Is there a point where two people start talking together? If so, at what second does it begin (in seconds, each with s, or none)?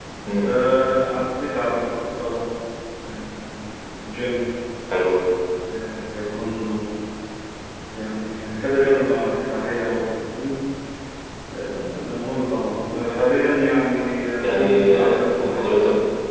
14.4 s